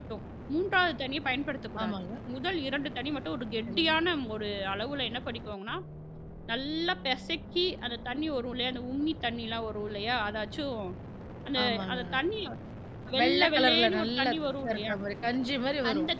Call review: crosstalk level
present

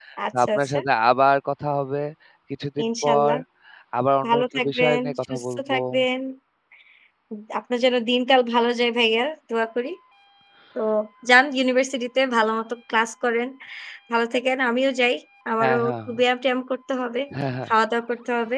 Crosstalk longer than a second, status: present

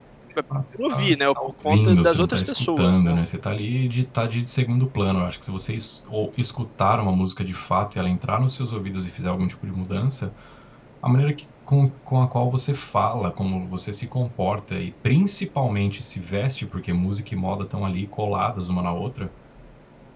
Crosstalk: present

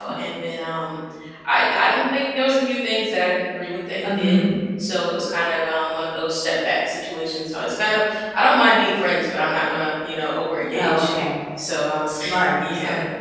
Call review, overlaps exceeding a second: none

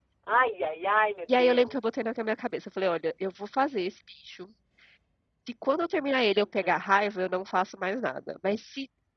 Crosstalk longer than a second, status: none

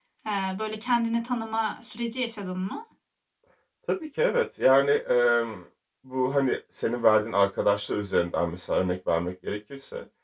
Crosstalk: none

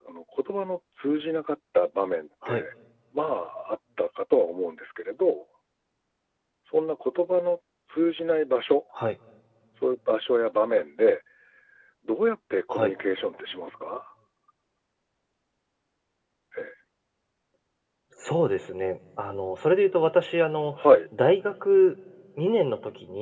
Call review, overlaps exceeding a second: none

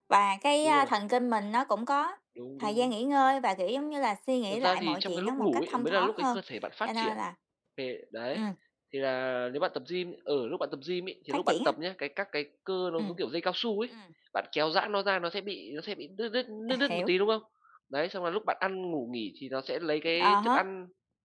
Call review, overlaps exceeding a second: present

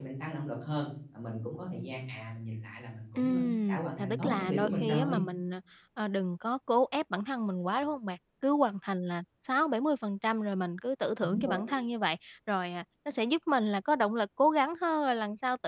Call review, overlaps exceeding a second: present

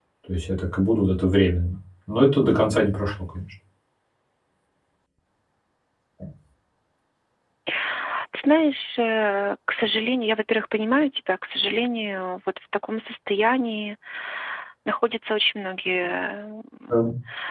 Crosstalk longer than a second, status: none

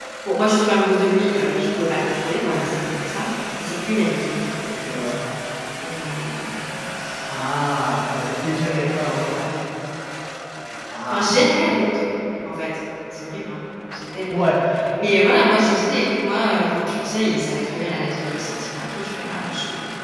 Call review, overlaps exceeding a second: none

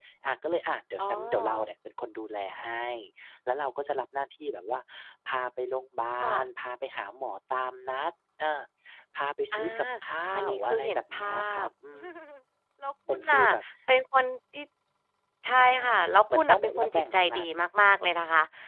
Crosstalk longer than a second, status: present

